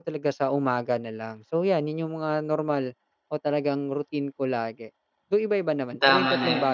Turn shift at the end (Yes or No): Yes